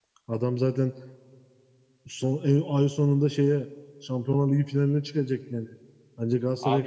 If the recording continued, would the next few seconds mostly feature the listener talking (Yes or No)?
Yes